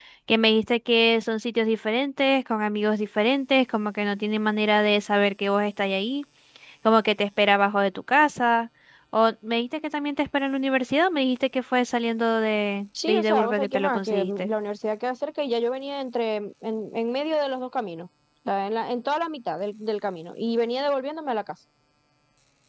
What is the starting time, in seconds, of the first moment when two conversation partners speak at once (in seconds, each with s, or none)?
12.9 s